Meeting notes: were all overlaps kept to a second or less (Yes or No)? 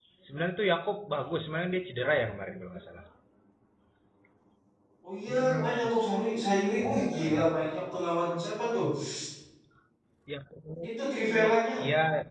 No